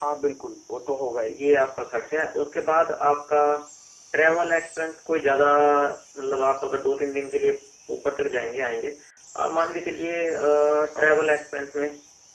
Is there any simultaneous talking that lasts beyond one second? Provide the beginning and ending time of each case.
none

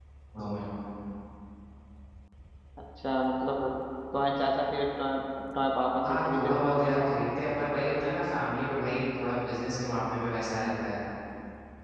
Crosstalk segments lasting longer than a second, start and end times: 6.0-7.3

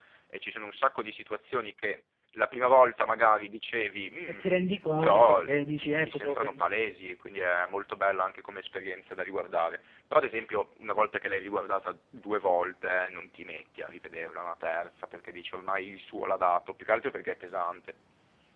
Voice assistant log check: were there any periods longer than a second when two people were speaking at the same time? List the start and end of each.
5.0-6.7

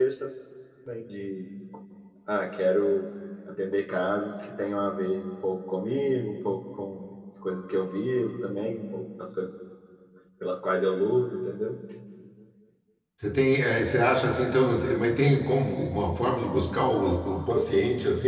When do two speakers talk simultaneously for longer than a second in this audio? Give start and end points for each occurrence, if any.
none

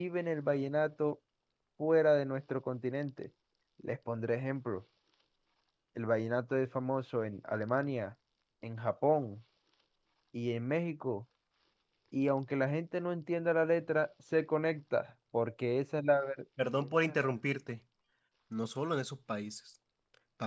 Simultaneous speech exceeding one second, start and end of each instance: none

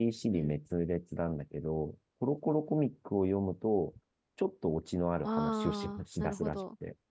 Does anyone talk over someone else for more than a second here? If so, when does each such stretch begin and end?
5.2-6.6

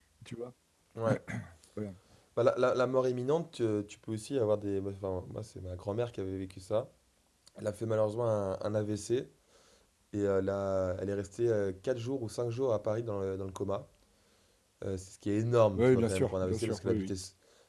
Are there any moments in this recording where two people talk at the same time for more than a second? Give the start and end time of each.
15.8-17.1

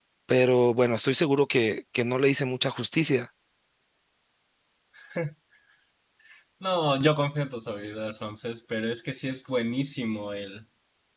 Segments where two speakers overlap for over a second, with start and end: none

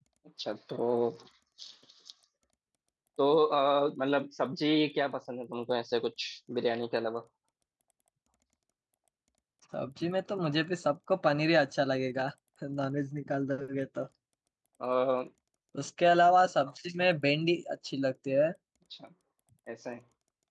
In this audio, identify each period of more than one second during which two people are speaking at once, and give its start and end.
none

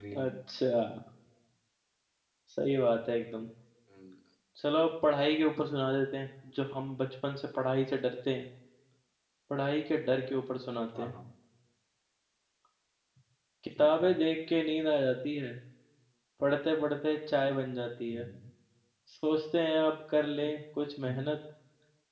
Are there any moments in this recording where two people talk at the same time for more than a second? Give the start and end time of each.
none

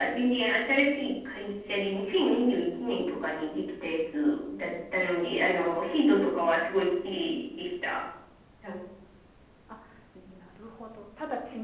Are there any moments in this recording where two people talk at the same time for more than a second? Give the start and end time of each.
none

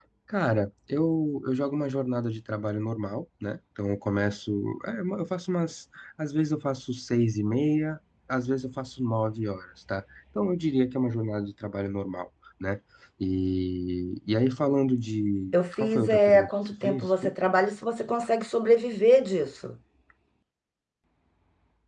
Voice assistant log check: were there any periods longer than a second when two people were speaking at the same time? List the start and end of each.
15.8-17.3

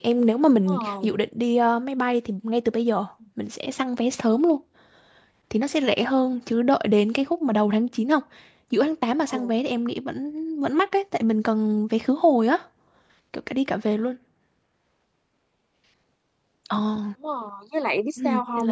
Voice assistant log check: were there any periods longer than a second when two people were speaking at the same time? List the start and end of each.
none

